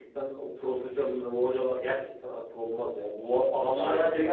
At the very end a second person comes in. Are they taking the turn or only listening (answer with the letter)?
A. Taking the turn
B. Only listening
B